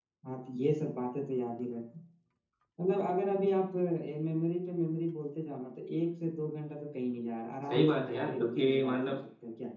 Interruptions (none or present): present